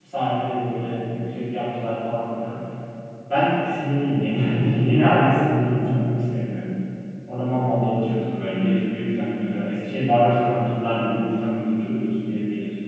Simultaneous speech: No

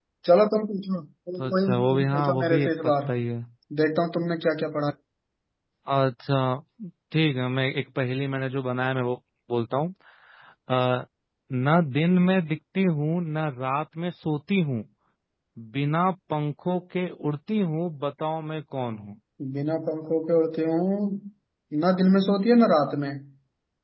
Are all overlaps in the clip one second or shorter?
No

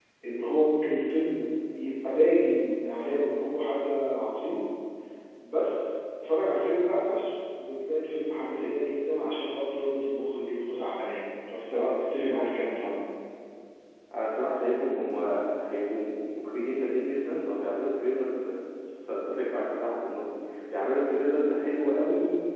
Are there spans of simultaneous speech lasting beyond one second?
No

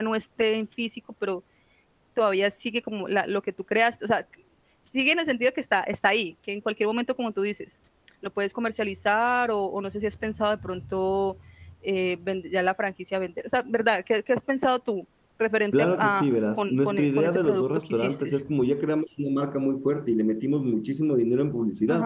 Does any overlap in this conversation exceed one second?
Yes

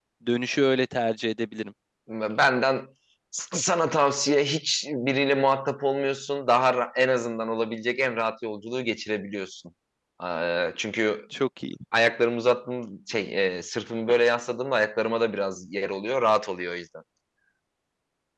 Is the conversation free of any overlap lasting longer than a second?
Yes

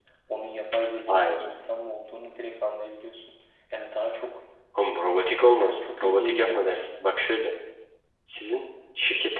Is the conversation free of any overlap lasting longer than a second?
No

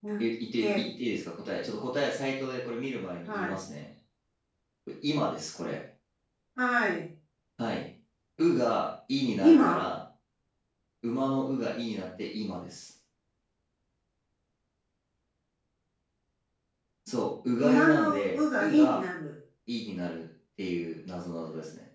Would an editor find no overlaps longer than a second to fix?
No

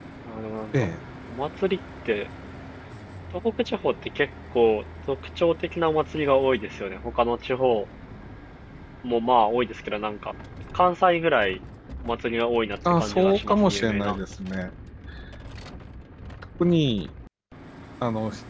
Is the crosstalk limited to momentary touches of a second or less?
No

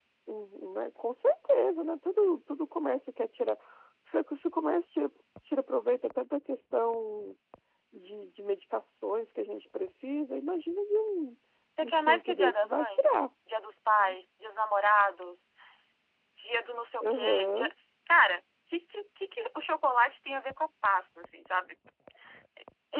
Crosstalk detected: Yes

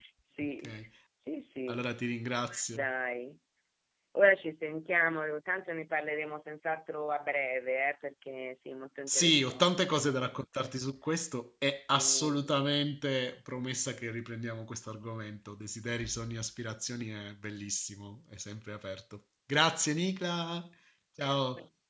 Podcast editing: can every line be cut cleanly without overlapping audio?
No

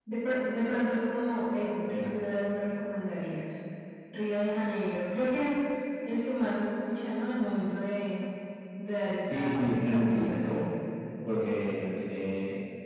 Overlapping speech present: Yes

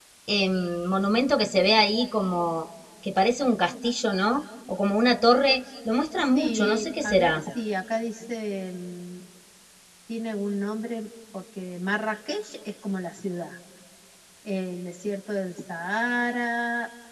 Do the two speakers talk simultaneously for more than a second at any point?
Yes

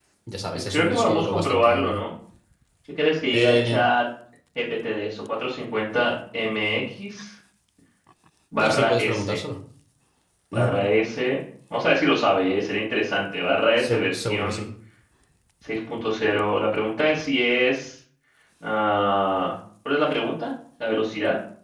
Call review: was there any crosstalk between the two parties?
Yes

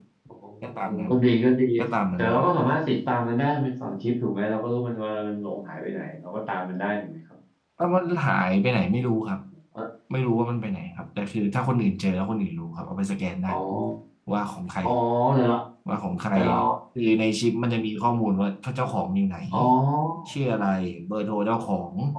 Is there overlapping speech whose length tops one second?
No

